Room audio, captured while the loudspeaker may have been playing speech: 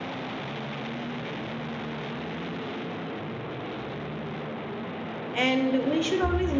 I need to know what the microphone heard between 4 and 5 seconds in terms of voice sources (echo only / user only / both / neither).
neither